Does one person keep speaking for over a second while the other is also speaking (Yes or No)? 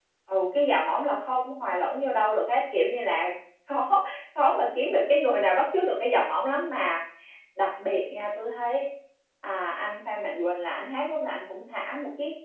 No